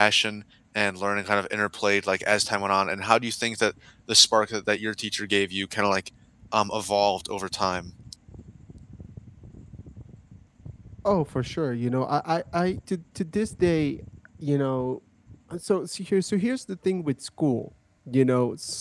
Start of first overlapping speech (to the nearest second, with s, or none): none